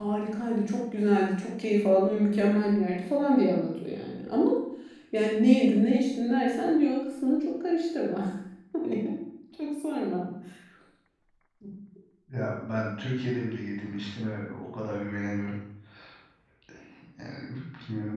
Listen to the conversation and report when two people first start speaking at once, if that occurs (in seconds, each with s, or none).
none